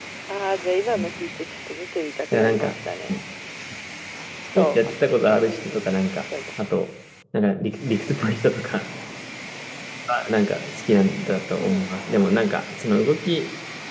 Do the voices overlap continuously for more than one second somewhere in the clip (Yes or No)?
Yes